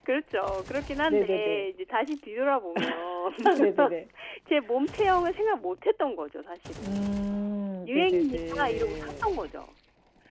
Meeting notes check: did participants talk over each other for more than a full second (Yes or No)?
Yes